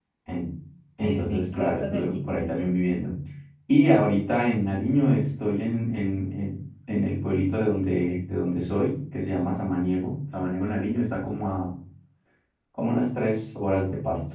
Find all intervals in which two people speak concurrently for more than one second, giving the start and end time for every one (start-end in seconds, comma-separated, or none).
1.0-2.5